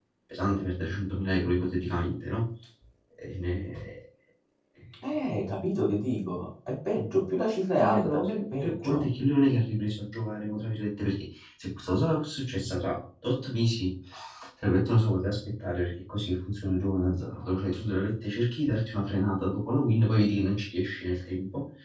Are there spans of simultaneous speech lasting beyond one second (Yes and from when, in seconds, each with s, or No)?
Yes, from 7.8 s